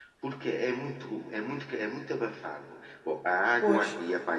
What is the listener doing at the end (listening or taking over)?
listening